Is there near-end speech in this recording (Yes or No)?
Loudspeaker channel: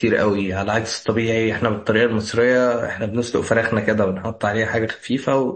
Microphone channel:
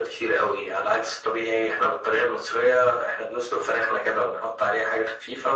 No